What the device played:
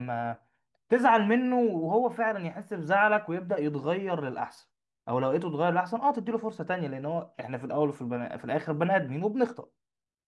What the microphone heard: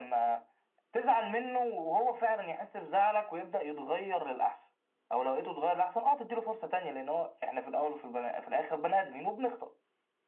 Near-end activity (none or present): none